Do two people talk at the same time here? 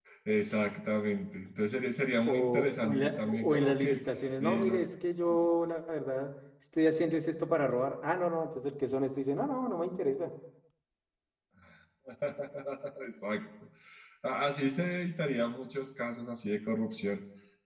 Yes, from 2.3 s

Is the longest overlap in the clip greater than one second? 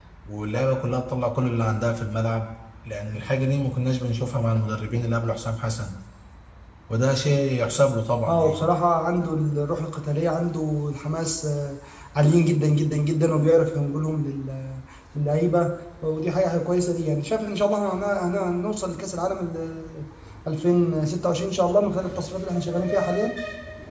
No

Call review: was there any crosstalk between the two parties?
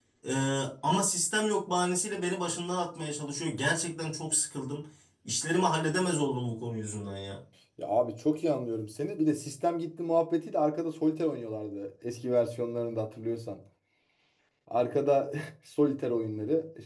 No

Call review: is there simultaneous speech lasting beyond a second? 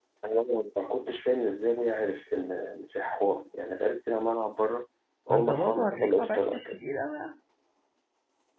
Yes, from 5.3 s

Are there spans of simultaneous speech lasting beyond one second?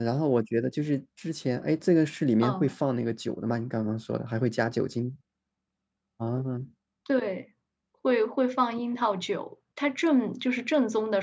No

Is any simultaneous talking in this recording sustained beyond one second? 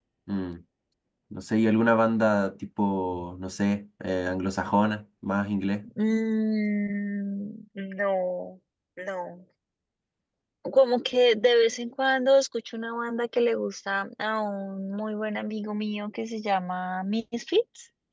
No

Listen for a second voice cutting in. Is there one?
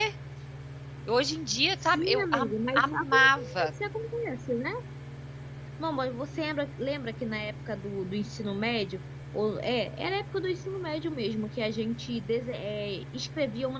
Yes, from 1.8 s

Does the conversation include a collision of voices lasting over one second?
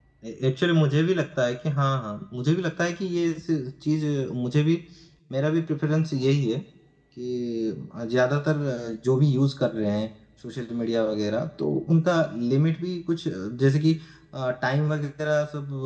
No

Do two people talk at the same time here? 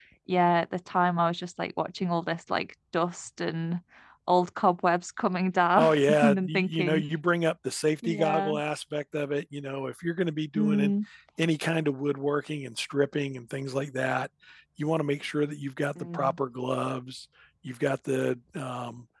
Yes, from 5.8 s

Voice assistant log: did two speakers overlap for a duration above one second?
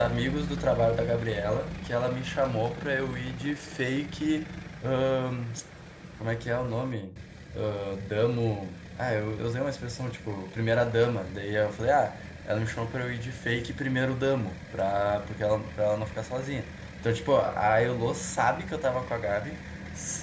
No

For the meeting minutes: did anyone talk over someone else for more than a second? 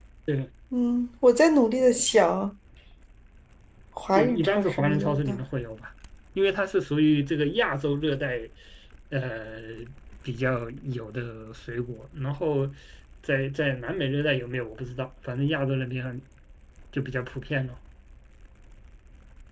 Yes, from 4.2 s

